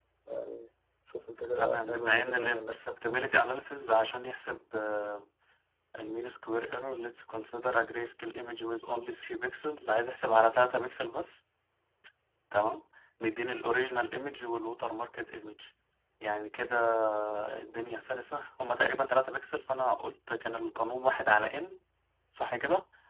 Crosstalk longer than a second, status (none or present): present